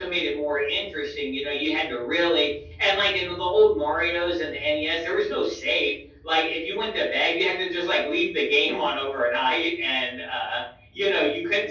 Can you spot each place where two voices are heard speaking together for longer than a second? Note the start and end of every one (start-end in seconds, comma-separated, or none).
none